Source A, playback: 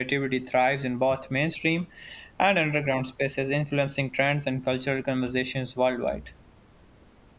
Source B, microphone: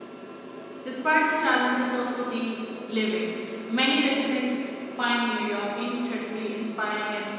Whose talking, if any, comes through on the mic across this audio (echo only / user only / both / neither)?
user only